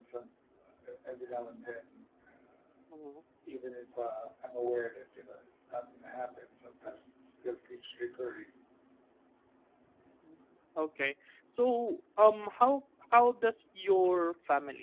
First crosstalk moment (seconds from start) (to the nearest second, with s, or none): none